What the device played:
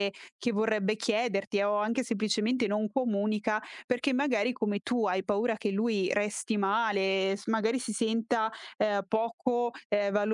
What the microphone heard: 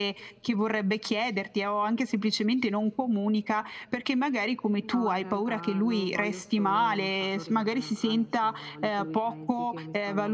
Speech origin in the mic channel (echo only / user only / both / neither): both